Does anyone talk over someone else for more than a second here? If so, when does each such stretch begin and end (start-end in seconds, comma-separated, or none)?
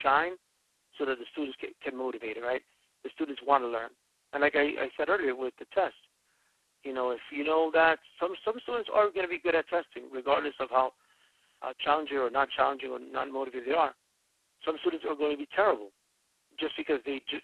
none